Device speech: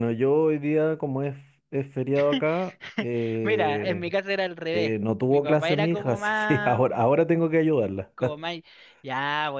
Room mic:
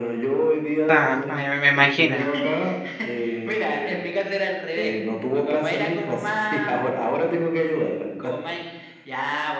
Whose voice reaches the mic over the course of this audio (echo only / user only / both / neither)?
both